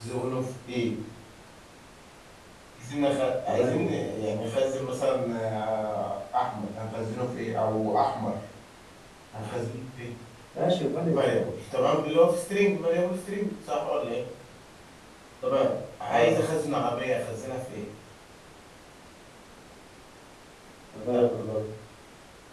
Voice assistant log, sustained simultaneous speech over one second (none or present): none